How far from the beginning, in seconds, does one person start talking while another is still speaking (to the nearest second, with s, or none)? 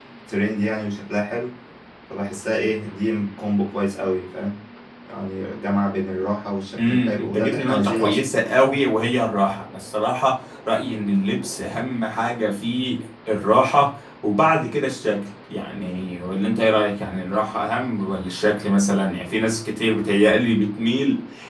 7 s